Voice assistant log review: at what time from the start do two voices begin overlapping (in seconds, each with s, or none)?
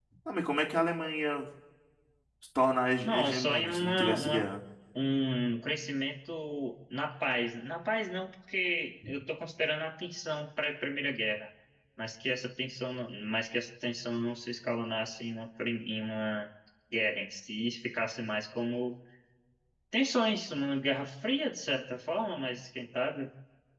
3.0 s